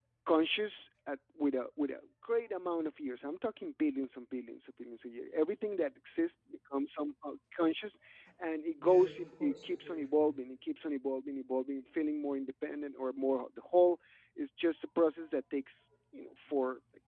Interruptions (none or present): present